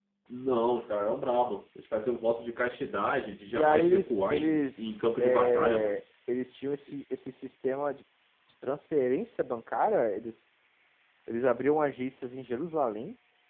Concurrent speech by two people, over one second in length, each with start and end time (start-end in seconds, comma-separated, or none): 3.5-6.0